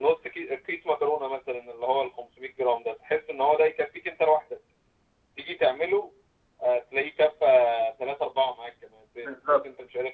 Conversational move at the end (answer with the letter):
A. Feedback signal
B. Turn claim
A